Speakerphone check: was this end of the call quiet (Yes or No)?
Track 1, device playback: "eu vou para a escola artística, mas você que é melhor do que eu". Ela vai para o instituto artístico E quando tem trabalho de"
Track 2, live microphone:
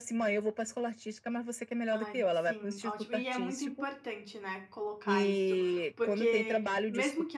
No